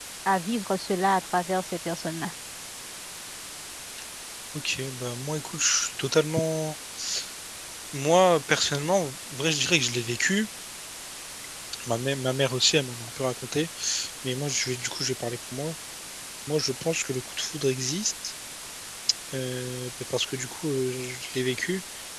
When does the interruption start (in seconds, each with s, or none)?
none